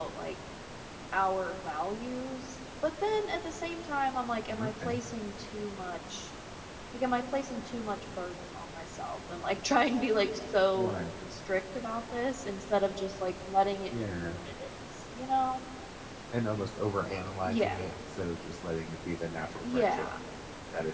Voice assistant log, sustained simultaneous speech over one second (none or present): none